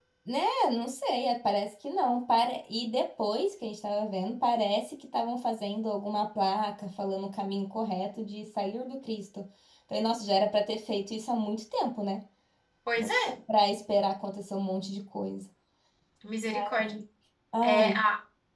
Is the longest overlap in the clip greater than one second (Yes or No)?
No